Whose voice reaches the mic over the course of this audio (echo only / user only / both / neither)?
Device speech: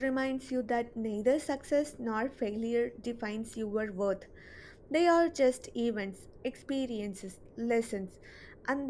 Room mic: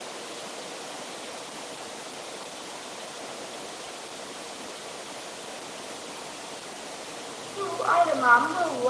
user only